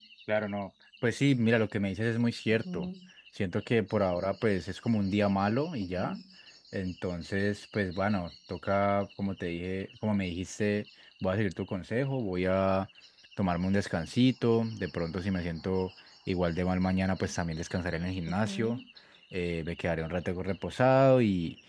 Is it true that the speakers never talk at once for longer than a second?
Yes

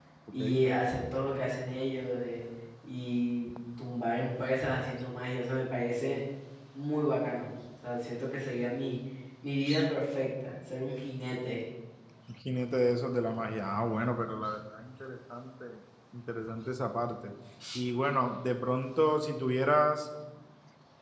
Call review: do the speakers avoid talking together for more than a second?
Yes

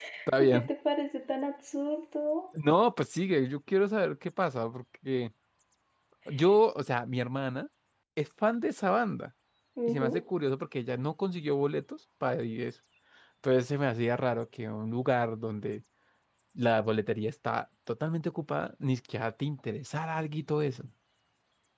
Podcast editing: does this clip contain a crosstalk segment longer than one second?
No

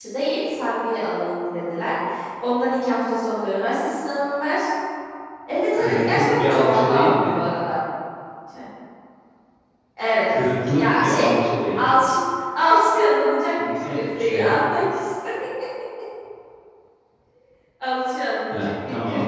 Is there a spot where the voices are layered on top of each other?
Yes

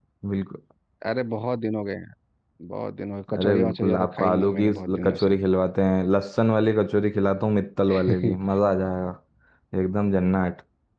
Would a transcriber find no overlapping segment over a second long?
No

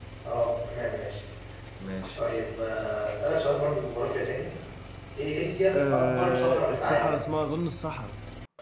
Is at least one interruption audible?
Yes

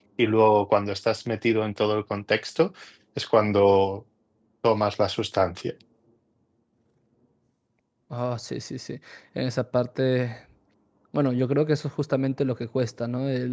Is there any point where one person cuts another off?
No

